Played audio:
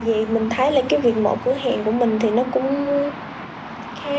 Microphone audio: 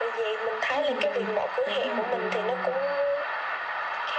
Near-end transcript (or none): Nhưng mà tại sao lại là